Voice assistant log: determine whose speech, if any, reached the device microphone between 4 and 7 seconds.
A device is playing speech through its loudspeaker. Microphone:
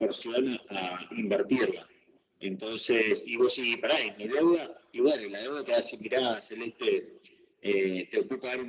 echo only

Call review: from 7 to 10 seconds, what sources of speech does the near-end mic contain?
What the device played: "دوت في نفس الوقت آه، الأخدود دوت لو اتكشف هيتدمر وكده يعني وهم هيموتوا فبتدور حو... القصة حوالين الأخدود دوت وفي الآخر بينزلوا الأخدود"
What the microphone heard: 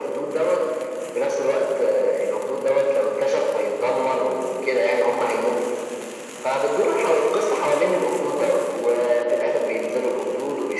echo only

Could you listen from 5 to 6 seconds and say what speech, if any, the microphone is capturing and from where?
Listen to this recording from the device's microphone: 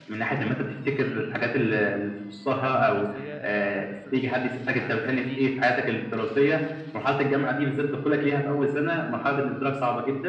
both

